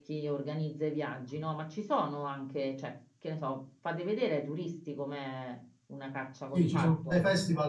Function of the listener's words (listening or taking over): taking over